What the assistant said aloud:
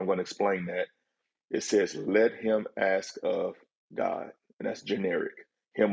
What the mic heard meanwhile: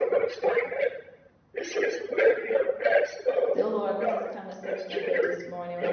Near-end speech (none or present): present